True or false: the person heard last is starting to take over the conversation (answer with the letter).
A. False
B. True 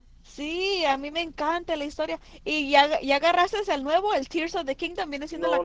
B